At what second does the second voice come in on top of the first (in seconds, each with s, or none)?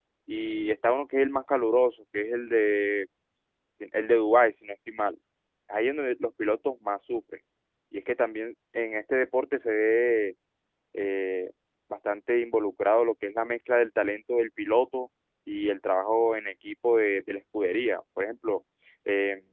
none